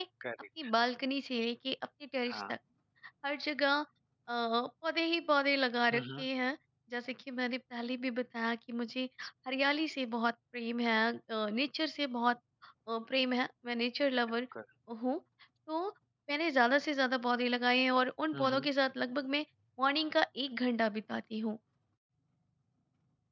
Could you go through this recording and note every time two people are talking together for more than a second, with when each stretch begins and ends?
none

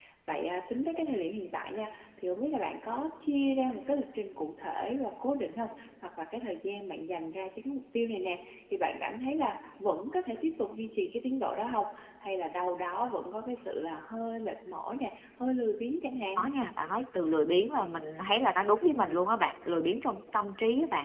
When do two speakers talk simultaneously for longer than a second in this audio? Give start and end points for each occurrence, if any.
none

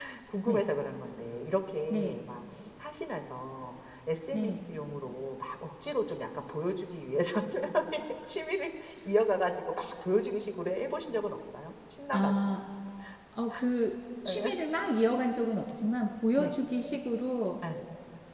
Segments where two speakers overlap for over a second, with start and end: none

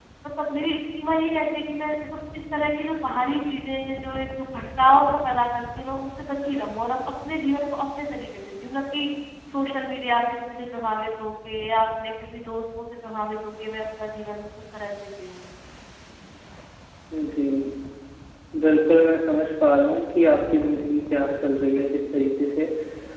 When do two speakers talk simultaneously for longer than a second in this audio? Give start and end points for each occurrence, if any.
none

